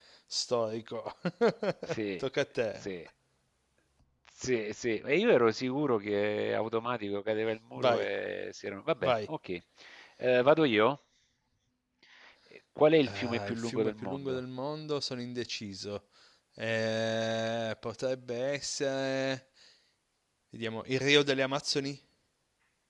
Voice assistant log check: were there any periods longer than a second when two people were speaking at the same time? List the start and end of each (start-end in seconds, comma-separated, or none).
13.1-14.4